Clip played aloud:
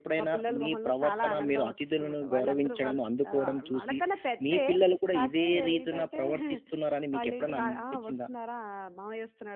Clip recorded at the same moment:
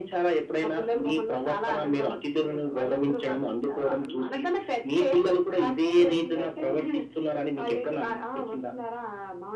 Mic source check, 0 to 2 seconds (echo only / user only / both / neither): echo only